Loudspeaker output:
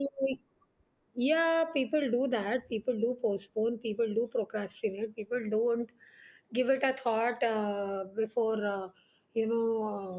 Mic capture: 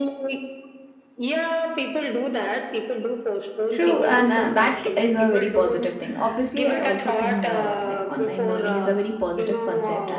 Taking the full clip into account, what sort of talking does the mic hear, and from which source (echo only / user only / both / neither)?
both